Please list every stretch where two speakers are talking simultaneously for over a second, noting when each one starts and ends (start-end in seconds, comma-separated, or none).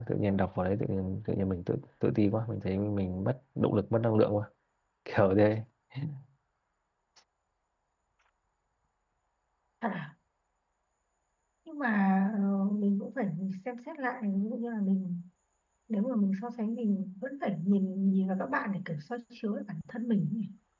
none